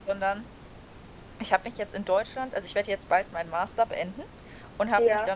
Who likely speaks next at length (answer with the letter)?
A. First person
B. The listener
A